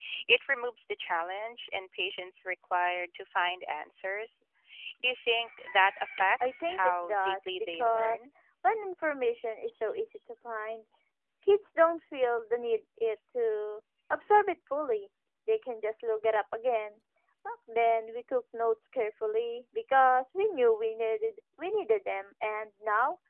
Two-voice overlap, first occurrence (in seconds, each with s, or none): 6.4 s